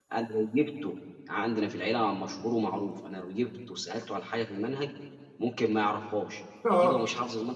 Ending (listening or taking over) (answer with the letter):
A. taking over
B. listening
B